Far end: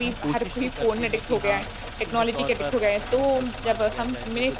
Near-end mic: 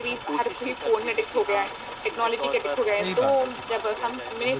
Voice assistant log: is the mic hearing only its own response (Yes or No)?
No